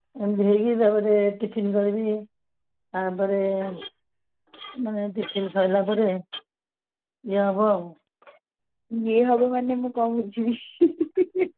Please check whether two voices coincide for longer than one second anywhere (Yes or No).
No